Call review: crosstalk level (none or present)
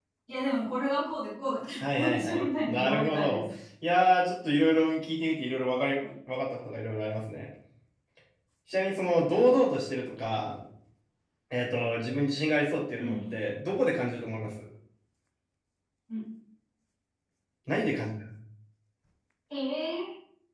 present